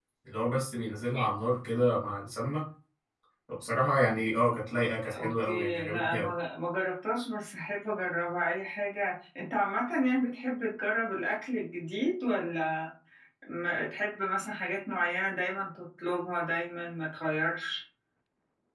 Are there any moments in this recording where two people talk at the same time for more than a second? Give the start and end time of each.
5.0-6.3

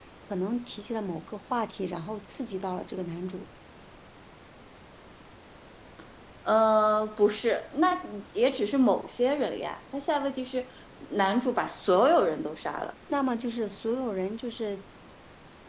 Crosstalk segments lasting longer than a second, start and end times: none

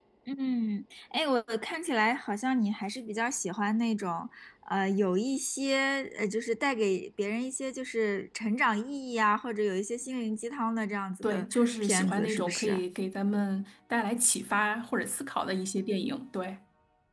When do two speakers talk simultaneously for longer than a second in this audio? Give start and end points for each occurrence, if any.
11.2-12.8

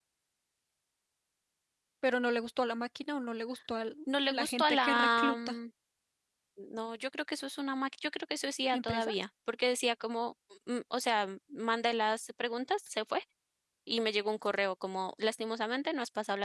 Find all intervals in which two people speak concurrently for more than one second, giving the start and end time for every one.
4.3-5.6

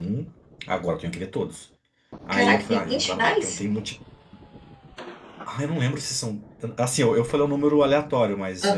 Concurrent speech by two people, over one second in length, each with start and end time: 2.3-3.6

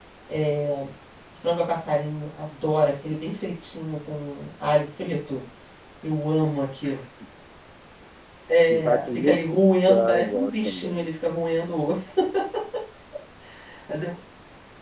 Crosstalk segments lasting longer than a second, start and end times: 8.7-11.1

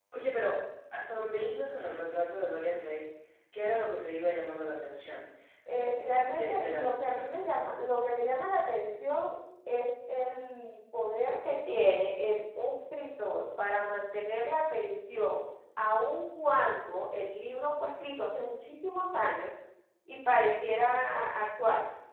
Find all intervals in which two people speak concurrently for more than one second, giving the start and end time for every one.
5.7-7.2

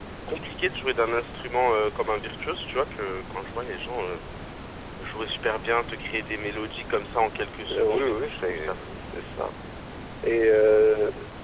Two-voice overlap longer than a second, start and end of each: 7.7-8.9

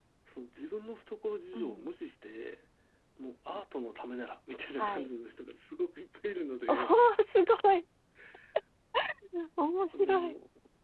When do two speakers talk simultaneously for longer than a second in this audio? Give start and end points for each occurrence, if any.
none

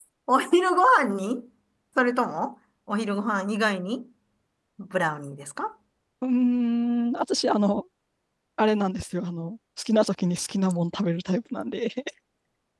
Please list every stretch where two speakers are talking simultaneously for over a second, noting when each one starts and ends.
none

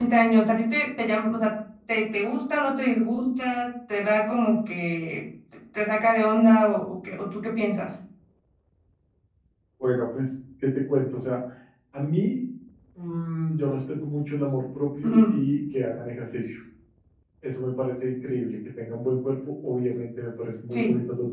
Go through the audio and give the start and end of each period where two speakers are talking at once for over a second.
none

